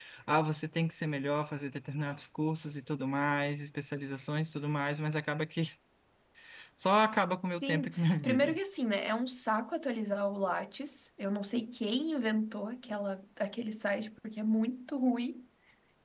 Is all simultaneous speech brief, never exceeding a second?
No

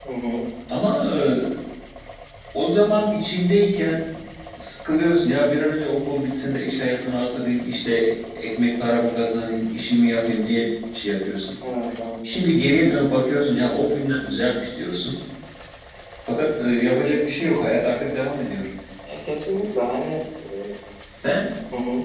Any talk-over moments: No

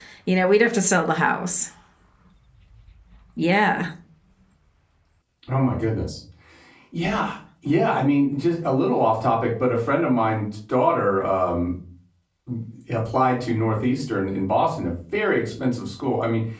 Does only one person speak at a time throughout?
Yes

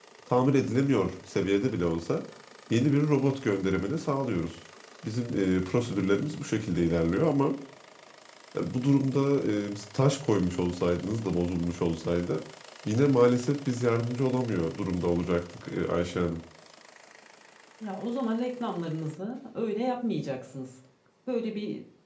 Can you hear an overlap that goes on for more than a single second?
No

